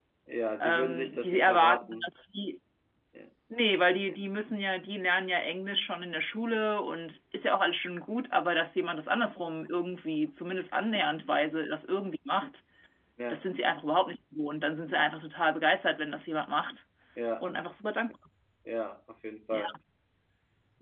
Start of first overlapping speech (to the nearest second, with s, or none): 1 s